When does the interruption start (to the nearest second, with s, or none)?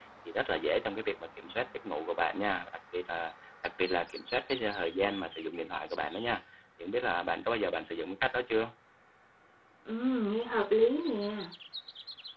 none